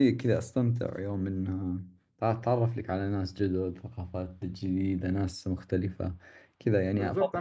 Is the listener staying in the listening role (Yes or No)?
No